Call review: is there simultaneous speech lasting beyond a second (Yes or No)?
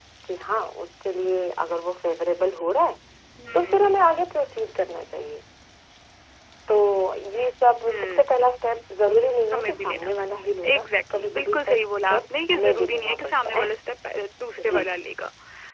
Yes